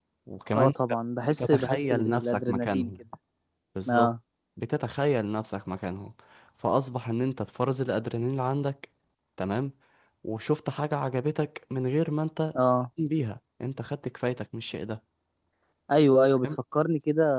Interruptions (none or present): present